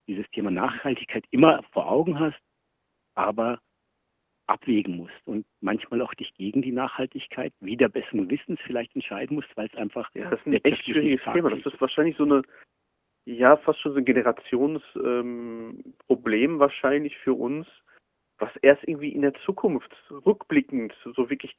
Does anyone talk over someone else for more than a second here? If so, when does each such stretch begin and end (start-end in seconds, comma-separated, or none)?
10.5-11.8